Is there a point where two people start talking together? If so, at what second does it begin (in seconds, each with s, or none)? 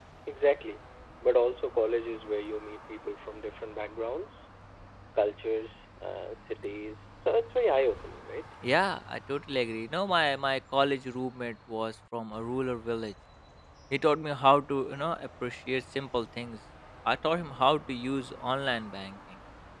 none